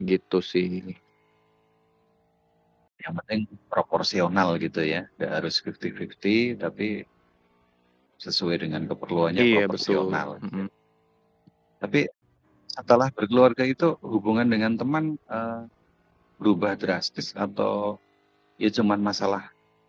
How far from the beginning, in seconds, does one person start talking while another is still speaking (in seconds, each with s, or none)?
9.4 s